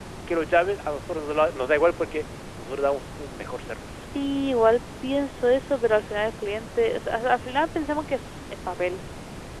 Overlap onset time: none

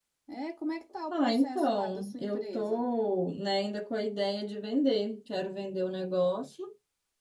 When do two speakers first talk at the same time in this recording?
1 s

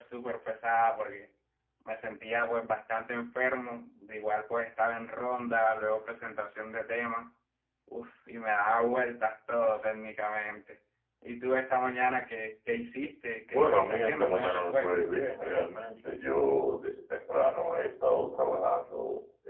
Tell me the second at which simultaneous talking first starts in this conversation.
14 s

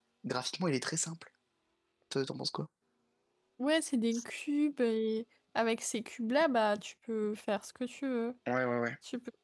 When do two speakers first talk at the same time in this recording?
none

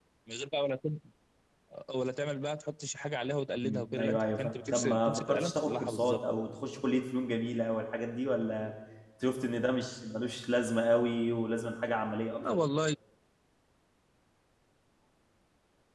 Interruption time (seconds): 4 s

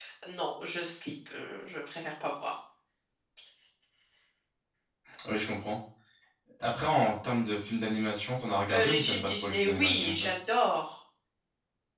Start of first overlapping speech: 9 s

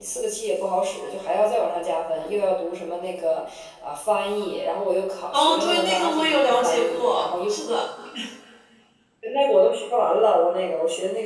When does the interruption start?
5 s

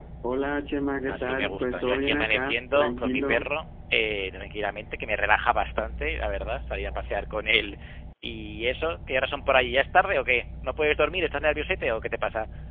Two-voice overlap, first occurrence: 1 s

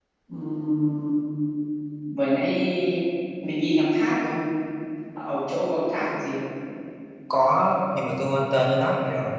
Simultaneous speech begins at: none

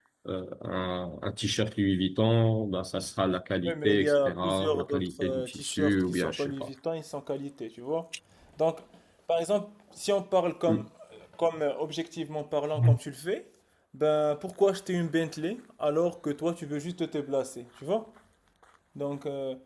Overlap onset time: 4 s

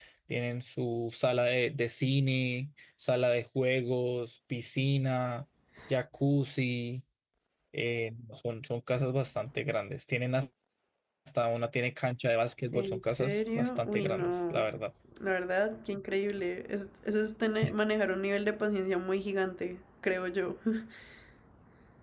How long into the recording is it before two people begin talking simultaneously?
13 s

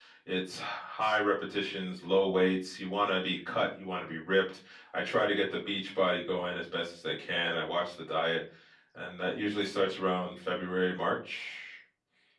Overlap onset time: none

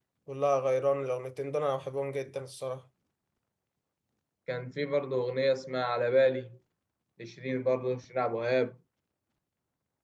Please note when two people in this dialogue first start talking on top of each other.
none

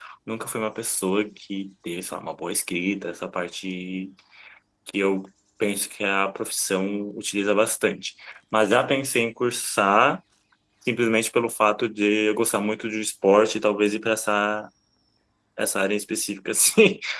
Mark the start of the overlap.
none

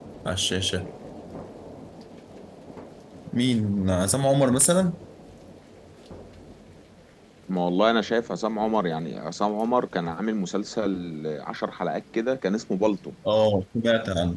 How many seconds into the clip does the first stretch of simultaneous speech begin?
none

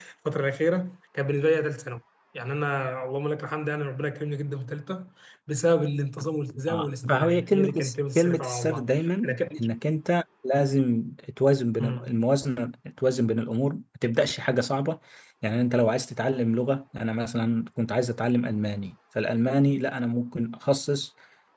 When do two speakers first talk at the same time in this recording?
7 s

